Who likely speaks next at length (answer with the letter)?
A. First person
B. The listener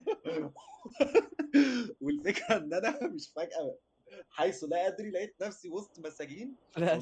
B